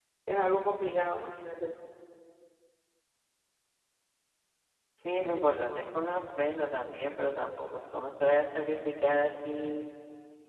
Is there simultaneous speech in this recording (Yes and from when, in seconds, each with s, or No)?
No